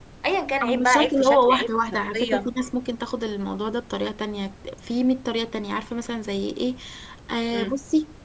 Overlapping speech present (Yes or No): Yes